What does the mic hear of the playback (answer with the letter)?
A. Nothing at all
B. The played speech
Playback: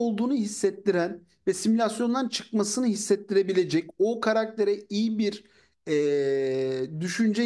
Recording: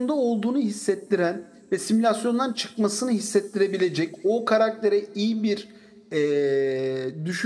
B